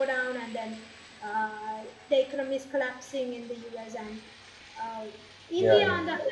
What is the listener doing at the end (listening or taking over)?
listening